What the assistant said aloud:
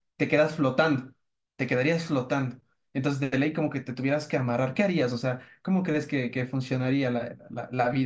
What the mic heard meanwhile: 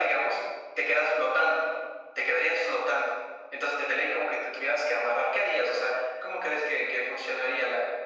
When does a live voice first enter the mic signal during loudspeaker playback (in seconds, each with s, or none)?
none